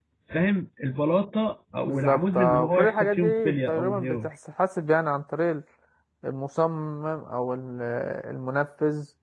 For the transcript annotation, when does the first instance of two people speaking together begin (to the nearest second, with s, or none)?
2 s